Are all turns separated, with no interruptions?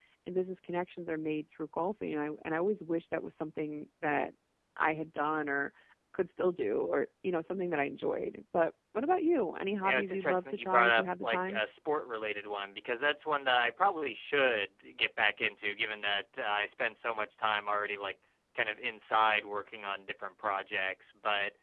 No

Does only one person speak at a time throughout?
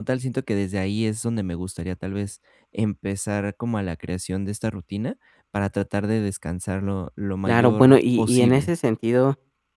No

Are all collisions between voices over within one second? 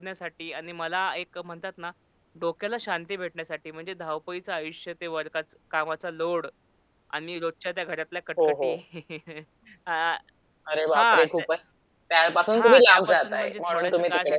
No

